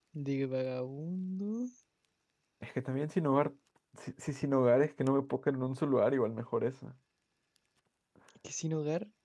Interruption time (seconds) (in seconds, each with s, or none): none